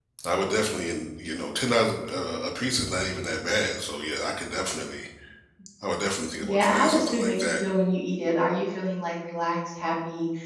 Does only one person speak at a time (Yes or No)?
No